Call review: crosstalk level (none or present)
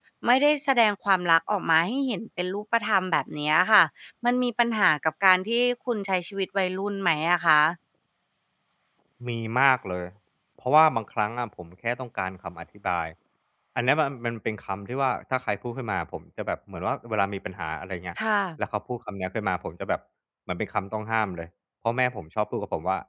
none